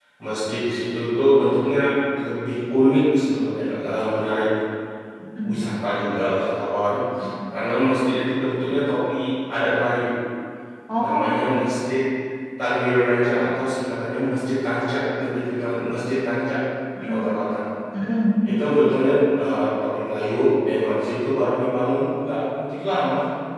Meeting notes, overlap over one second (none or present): none